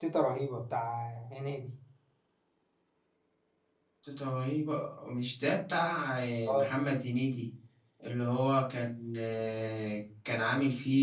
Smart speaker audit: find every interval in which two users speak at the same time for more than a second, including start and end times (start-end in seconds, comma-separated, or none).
none